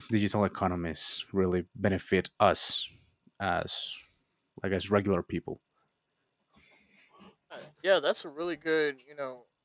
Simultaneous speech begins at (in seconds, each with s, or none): none